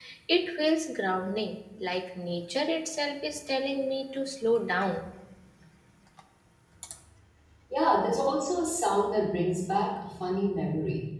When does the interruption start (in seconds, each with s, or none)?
none